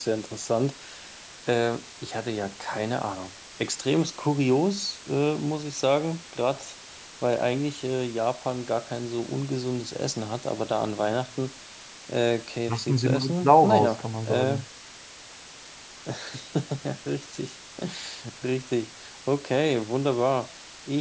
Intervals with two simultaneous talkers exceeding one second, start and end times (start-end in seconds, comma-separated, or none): 12.7-14.6